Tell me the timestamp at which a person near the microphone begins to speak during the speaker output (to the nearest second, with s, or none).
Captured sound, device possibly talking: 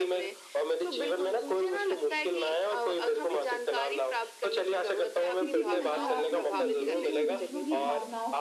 5 s